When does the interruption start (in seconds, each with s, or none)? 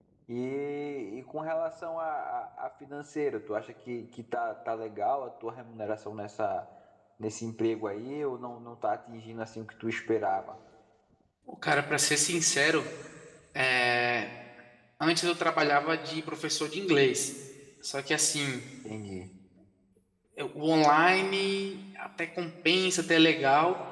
none